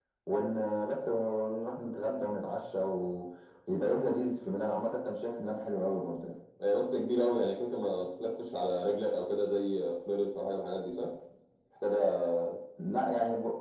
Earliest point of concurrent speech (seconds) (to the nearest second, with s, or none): none